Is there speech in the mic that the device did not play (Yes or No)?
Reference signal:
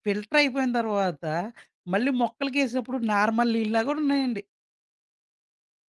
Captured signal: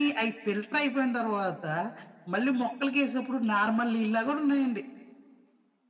No